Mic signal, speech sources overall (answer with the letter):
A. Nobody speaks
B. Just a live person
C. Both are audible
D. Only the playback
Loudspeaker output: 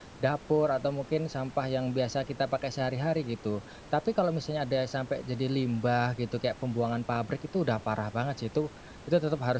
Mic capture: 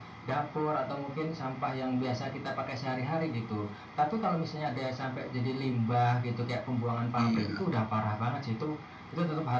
C